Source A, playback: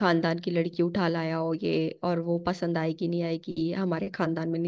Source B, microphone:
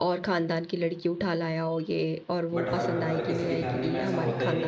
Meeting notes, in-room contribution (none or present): present